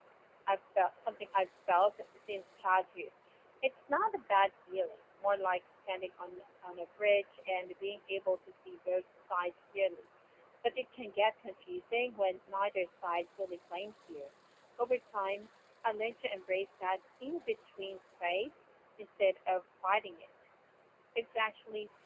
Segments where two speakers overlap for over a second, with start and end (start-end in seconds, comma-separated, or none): none